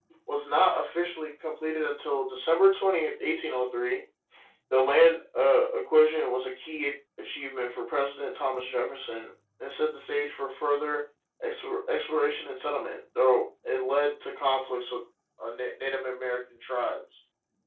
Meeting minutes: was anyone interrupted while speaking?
No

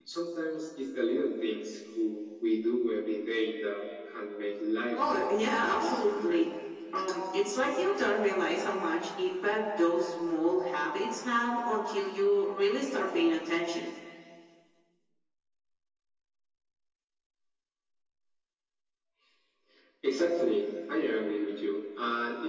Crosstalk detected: Yes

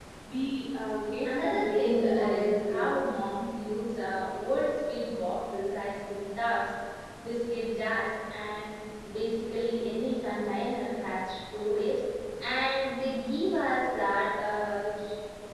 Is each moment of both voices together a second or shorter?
No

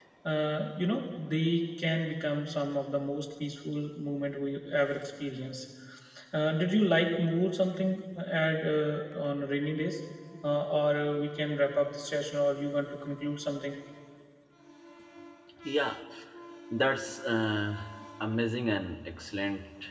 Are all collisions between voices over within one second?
Yes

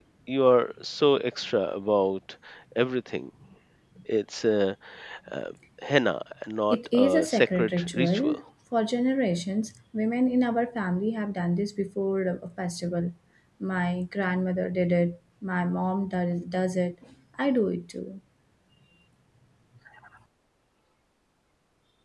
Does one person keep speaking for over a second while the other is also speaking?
Yes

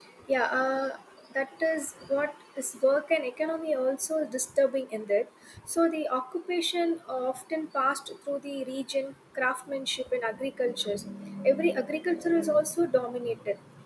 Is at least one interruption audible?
No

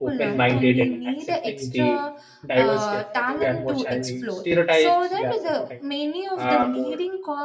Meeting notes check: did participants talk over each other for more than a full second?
Yes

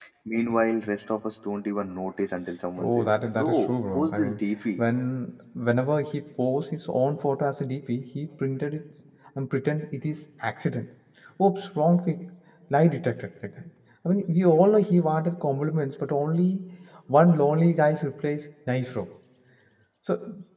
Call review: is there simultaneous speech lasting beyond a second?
Yes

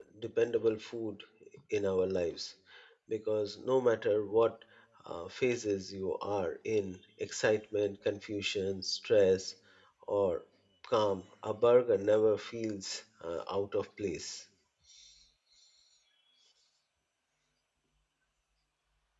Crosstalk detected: No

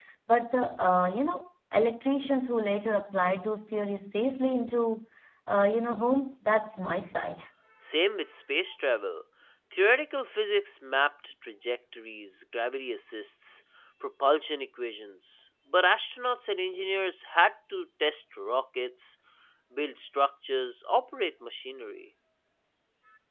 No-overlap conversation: Yes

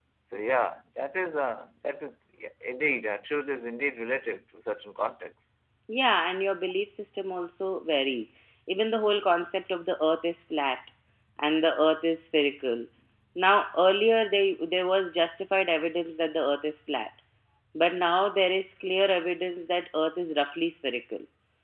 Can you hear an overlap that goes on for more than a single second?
No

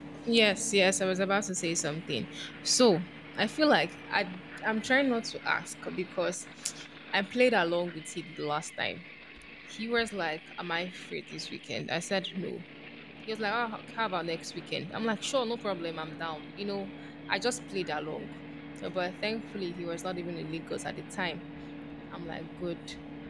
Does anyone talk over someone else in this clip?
No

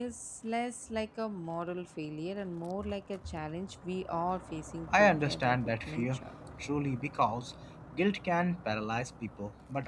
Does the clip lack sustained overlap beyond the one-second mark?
No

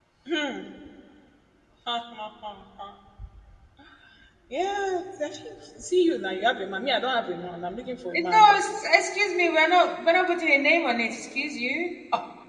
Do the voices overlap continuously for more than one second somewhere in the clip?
No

